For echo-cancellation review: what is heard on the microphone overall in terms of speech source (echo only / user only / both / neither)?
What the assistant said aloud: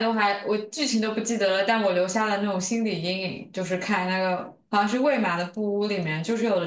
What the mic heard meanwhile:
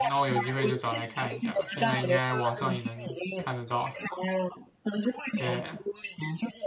both